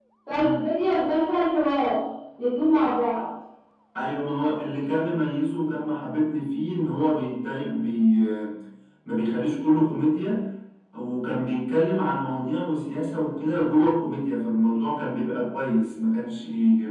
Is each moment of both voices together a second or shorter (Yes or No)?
Yes